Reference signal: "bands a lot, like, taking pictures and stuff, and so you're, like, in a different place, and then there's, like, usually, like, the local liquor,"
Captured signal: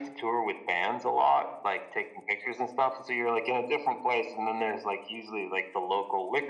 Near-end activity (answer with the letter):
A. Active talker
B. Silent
B